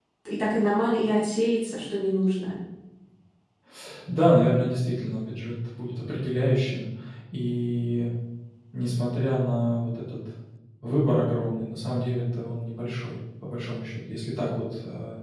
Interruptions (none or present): none